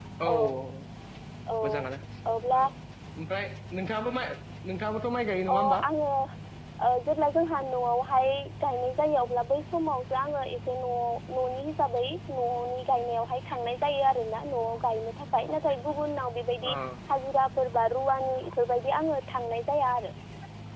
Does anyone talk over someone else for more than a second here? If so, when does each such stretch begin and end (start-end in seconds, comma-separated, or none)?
none